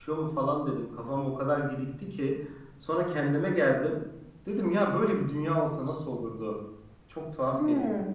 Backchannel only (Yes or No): No